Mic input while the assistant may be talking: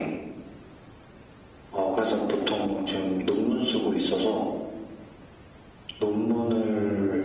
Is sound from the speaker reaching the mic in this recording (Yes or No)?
Yes